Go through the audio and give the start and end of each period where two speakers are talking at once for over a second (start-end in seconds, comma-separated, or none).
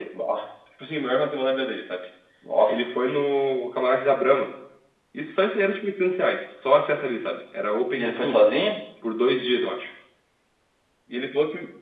none